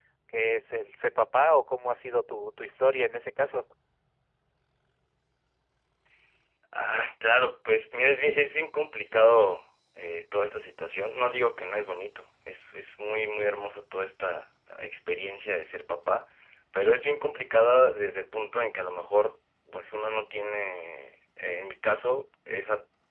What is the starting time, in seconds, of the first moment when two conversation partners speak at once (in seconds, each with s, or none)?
none